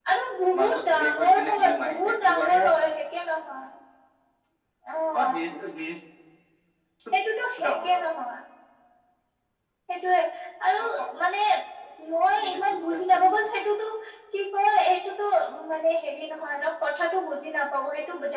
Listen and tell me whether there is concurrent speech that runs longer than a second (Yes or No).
Yes